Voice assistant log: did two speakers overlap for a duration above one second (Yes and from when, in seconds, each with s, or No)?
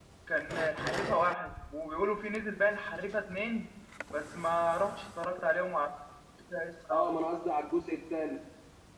No